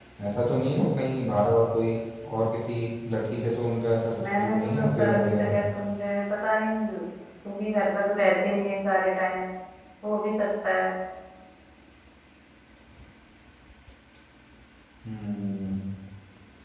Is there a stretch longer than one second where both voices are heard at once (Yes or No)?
Yes